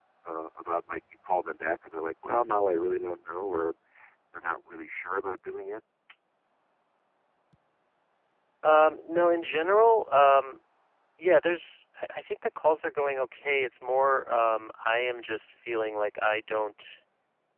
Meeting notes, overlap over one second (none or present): none